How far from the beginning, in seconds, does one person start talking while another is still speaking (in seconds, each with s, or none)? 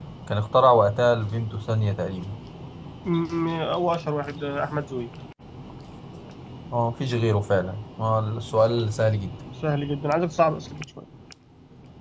none